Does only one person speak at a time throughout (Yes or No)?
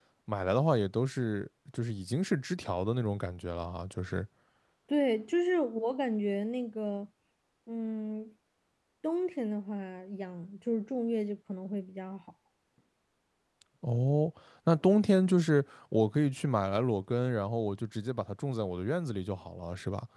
Yes